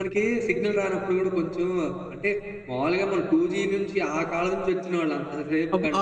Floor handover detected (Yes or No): No